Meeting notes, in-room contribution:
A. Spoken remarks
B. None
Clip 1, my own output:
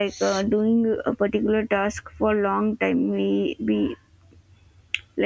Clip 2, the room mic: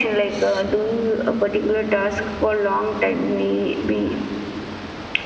B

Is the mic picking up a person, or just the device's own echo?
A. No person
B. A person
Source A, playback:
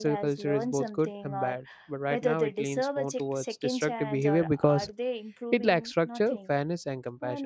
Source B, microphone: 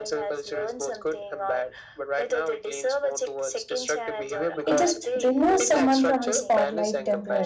B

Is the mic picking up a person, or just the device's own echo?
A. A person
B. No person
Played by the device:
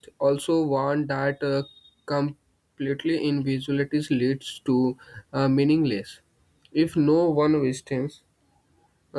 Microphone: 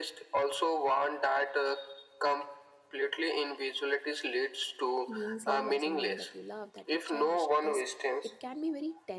A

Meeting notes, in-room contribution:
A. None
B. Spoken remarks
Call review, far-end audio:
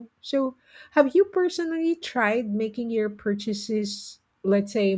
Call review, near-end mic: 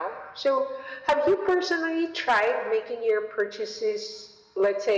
A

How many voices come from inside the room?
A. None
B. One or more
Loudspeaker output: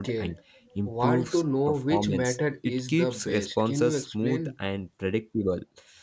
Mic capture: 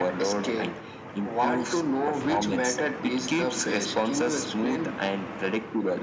A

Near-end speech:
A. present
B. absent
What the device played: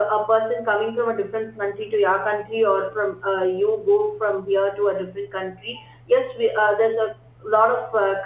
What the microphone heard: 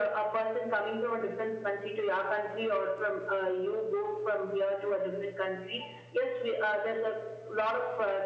B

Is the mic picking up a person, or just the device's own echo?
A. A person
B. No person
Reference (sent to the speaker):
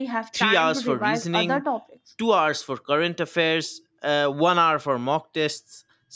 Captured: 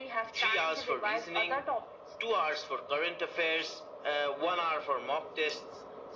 B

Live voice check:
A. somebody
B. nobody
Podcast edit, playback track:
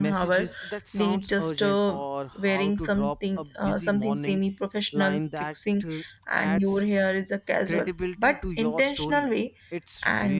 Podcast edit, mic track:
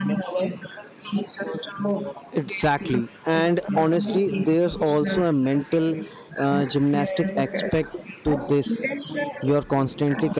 A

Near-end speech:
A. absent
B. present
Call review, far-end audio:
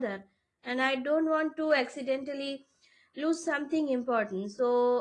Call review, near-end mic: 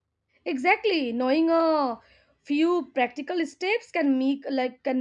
B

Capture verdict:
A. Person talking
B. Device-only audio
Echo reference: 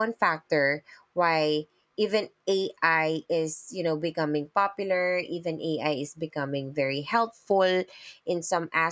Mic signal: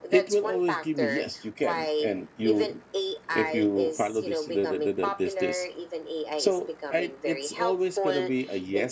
A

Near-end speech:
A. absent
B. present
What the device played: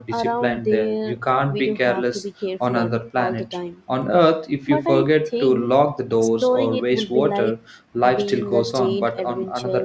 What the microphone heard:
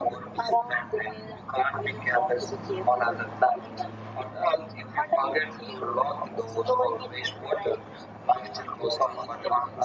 A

